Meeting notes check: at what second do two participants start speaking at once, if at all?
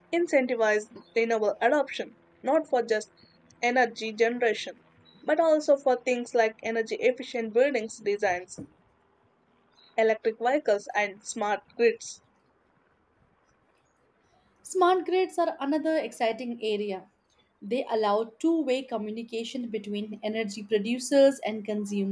none

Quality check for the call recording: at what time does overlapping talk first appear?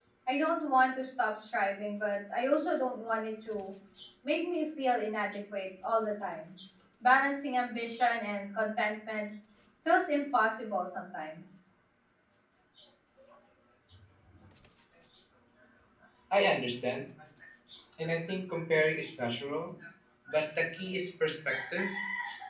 none

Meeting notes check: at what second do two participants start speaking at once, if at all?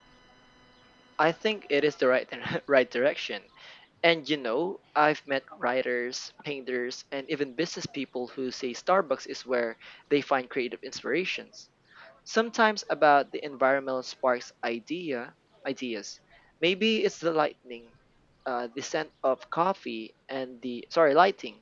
none

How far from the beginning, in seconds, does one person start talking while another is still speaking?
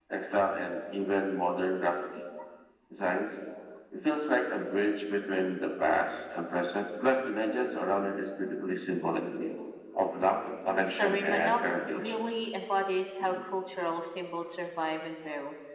10.8 s

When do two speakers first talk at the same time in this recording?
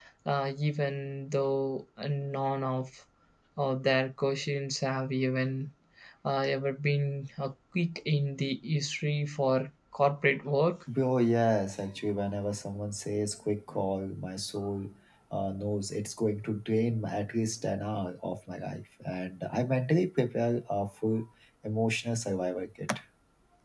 none

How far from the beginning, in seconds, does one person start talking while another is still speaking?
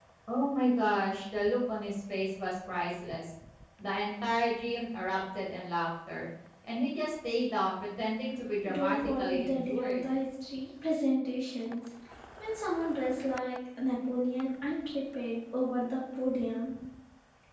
8.6 s

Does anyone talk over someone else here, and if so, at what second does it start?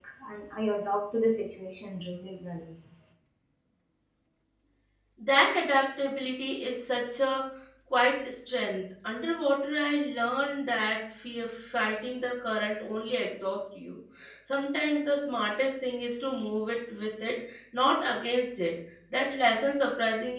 none

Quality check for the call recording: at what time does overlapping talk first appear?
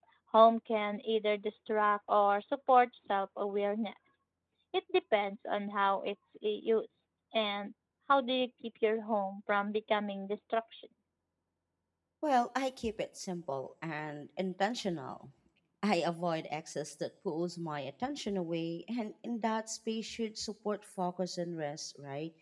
none

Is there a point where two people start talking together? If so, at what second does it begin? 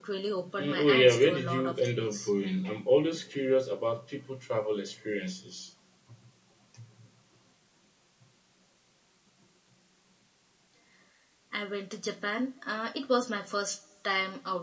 0.6 s

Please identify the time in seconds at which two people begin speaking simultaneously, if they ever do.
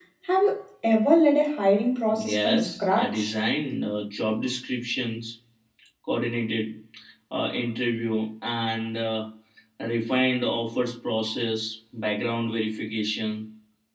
2.1 s

